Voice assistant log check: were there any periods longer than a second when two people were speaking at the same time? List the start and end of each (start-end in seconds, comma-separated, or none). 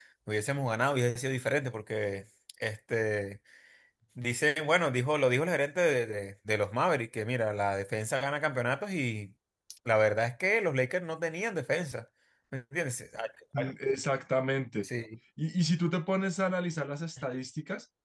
none